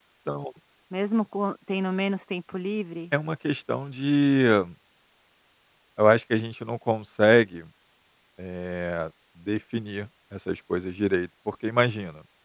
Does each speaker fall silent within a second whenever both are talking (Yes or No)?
Yes